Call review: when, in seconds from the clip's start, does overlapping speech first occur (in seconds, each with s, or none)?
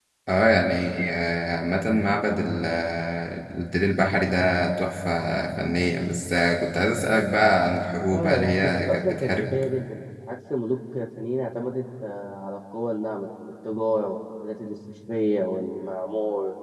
8.1 s